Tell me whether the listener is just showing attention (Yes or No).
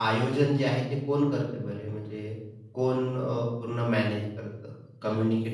No